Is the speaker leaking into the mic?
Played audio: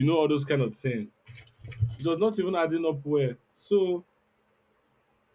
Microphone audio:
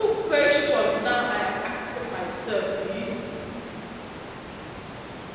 No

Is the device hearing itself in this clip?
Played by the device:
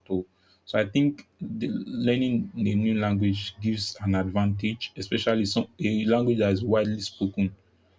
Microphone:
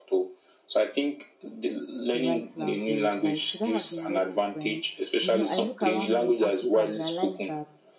Yes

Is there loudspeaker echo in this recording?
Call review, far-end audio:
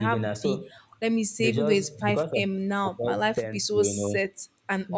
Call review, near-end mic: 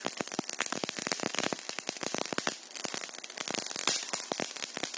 No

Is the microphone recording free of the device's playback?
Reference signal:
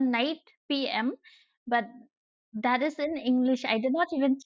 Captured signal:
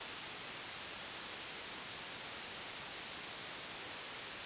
Yes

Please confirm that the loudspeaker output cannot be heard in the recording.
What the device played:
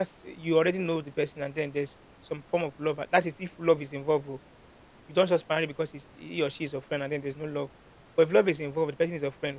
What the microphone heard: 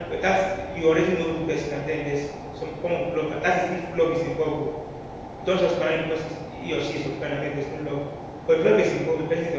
No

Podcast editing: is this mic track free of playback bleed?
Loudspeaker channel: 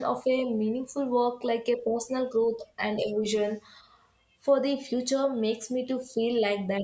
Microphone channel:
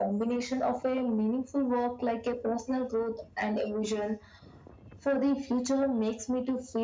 No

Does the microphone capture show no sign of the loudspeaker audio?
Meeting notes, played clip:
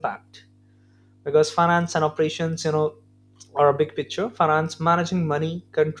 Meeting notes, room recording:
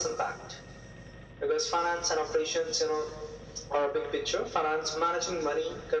No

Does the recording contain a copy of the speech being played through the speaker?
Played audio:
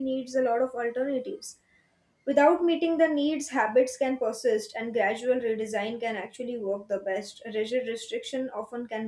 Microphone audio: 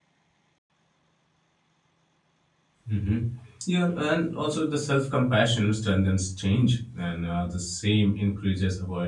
No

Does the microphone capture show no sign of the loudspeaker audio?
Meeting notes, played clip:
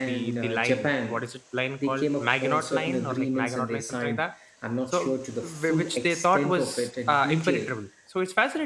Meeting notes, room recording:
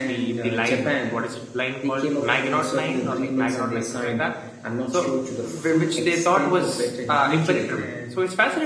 No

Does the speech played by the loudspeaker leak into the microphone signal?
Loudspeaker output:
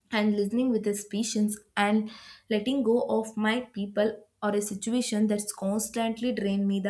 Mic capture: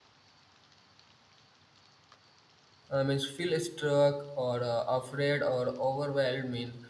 No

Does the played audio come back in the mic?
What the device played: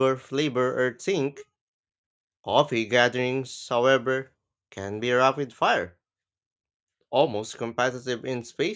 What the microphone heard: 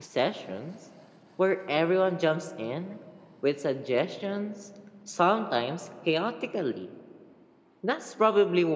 No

